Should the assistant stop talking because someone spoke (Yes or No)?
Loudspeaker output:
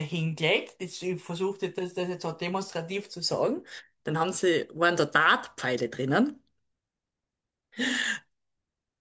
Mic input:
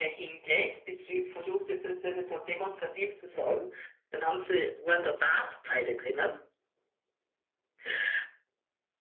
No